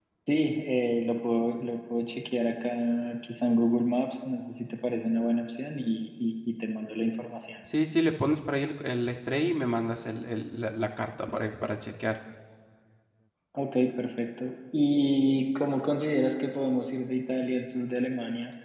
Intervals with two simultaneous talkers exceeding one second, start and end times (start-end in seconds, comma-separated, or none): none